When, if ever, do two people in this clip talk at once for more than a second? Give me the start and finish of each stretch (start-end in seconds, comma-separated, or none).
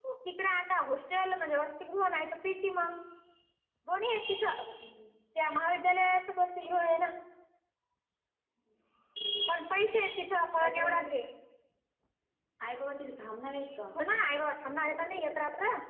none